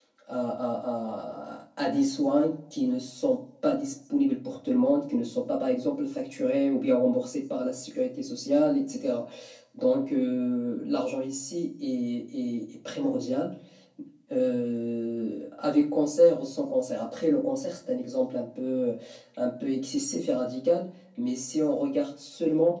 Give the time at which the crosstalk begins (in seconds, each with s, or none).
none